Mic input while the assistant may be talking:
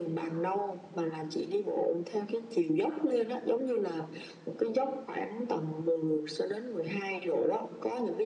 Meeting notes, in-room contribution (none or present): none